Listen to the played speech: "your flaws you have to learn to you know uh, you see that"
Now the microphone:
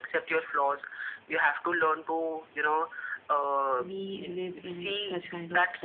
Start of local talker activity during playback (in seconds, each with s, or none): 3.8 s